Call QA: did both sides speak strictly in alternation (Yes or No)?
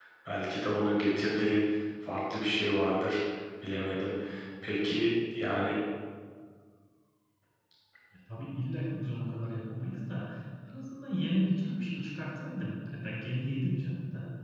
Yes